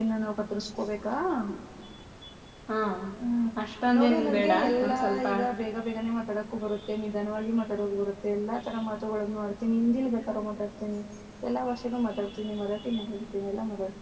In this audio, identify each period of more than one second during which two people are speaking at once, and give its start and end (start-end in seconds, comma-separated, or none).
4.0-5.3